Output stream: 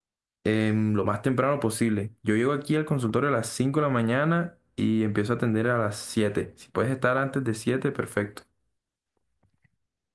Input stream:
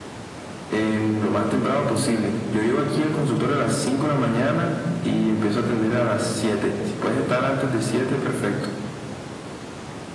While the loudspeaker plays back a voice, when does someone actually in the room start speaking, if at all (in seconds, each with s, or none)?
none